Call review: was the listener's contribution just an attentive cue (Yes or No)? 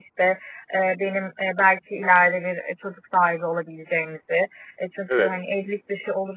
Yes